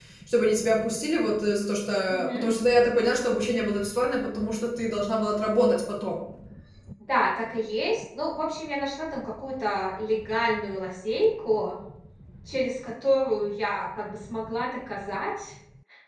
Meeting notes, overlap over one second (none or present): none